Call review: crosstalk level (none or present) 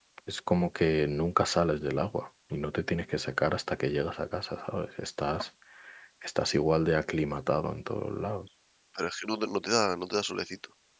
none